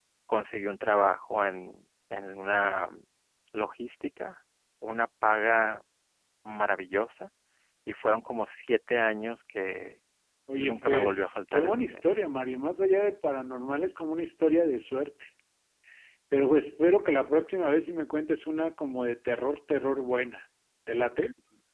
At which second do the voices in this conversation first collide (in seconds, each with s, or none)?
10.6 s